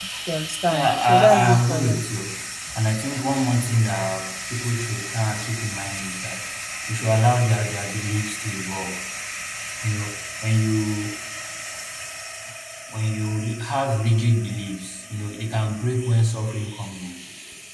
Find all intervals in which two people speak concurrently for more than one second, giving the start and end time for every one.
0.7-2.0

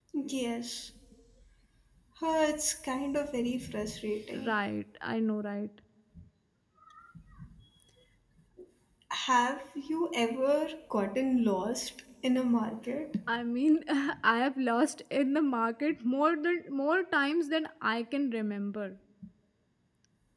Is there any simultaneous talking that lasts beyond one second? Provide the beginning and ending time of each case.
none

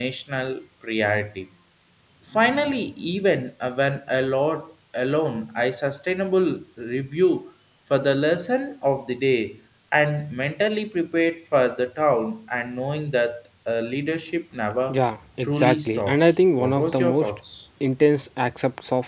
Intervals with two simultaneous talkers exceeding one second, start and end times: 15.4-17.3

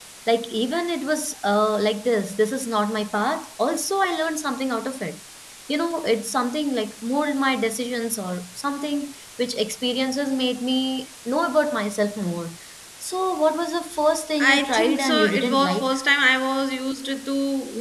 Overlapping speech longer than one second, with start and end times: 14.4-15.9

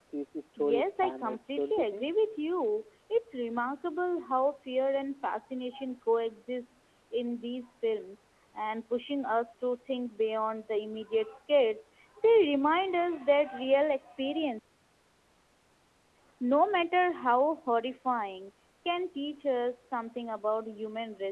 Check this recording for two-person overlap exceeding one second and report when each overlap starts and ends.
0.6-2.1

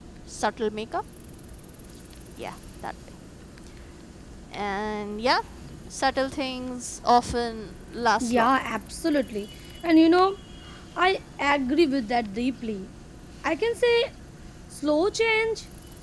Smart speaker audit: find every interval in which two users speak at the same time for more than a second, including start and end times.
none

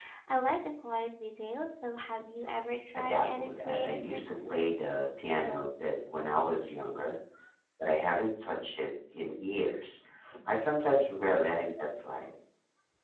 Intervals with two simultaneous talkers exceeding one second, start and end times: 3.0-4.7

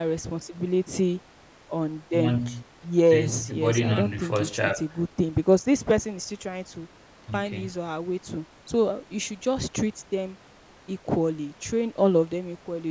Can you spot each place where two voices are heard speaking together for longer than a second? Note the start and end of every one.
3.1-4.8

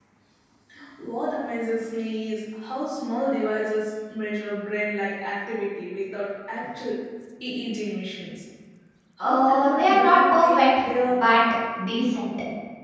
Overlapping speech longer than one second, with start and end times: 9.2-11.3

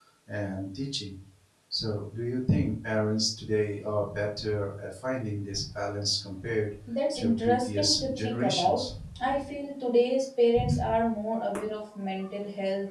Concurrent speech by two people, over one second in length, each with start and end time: 7.2-8.8

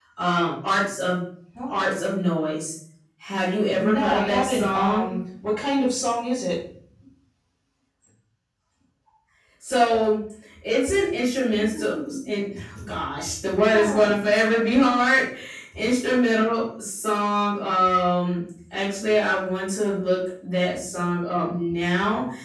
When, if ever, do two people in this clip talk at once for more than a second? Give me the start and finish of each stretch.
3.8-5.1

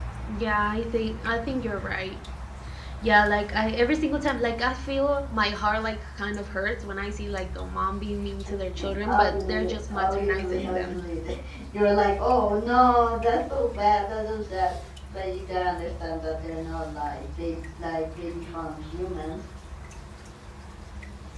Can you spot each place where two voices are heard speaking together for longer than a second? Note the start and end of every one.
9.1-11.0

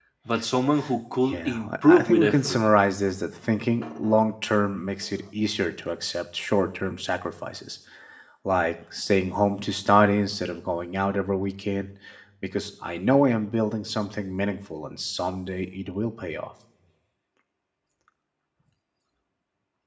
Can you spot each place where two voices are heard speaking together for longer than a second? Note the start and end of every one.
1.3-2.6

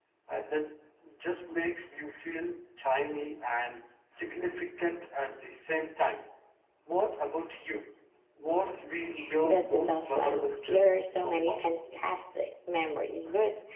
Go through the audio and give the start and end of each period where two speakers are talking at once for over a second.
9.4-11.6

